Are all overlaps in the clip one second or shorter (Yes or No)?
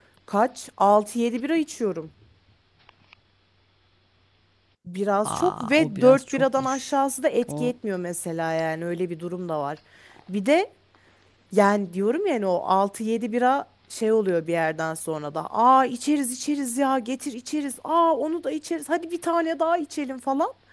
No